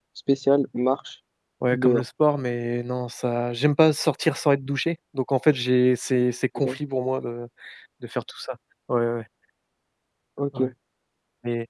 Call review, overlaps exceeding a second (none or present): none